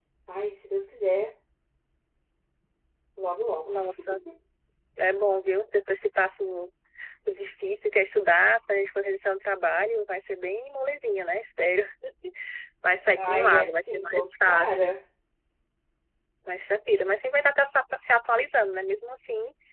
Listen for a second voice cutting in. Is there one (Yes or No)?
Yes